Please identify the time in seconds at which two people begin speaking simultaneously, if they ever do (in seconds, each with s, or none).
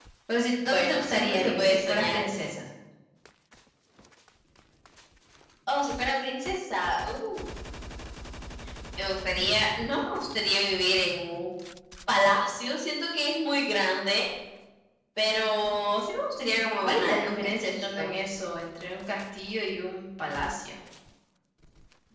0.7 s